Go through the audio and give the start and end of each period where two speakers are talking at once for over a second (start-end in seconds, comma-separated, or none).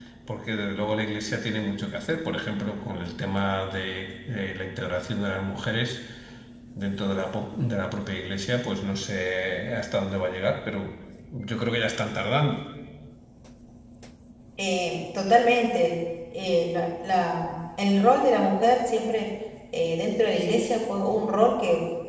none